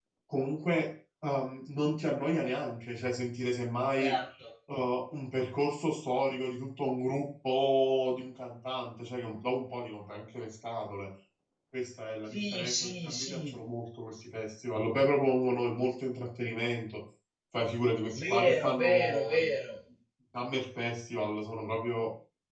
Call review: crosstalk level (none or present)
present